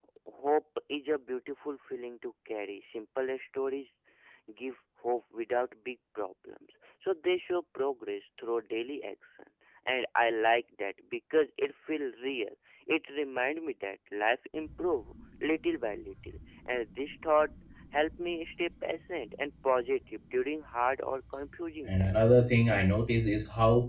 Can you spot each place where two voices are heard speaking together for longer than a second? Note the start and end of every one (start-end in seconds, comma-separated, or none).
none